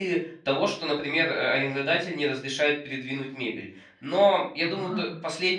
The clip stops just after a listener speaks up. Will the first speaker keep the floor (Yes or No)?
Yes